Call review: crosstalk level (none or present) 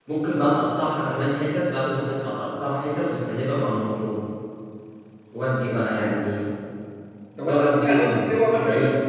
present